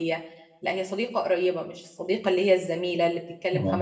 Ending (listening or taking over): listening